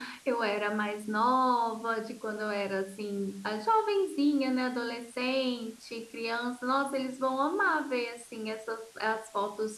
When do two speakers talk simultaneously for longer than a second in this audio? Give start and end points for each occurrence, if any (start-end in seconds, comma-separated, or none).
none